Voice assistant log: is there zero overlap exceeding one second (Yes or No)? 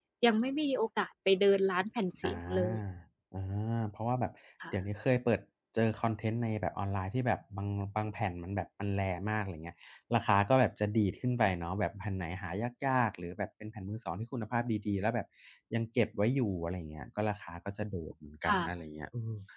Yes